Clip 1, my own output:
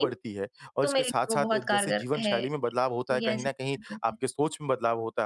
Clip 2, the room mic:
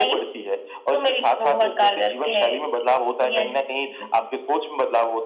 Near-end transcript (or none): none